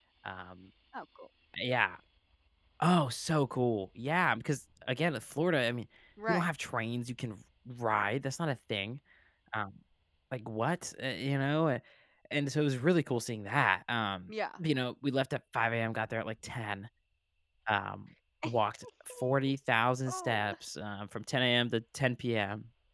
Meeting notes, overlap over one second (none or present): none